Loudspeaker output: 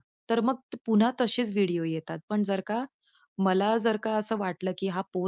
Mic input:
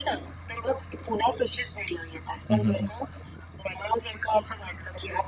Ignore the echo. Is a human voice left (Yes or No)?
Yes